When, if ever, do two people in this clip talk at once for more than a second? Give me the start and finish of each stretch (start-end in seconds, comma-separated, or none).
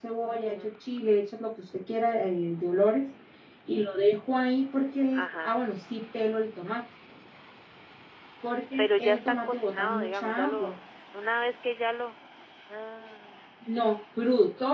8.8-10.8